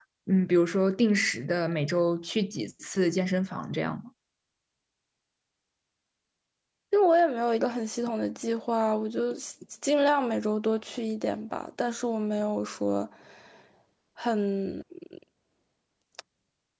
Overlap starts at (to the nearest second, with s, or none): none